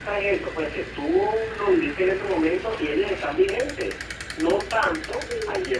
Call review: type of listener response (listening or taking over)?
listening